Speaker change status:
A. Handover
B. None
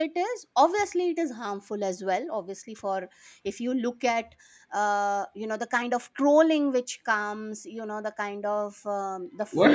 A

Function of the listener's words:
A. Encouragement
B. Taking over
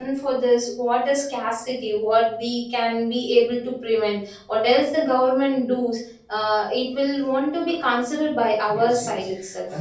B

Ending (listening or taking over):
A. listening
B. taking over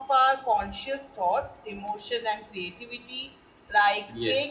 A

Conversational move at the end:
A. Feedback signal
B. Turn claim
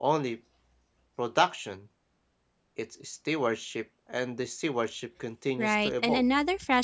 B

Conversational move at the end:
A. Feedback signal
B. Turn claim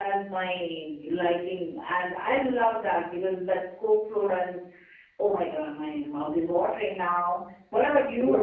B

